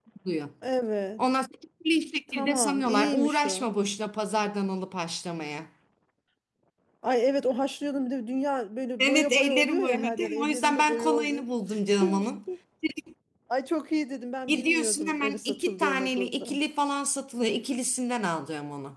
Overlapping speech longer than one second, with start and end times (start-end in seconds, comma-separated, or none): 2.3-3.7, 9.0-11.4, 14.5-16.6